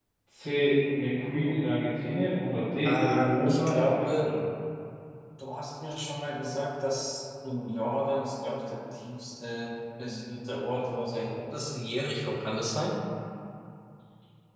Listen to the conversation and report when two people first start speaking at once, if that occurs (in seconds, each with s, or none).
2.8 s